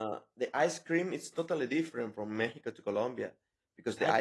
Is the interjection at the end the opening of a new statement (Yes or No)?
No